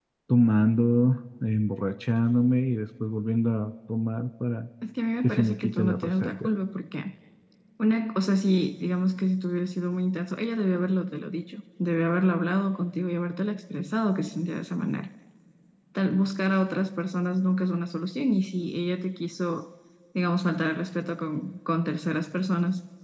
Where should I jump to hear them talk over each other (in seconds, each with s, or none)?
5.2 s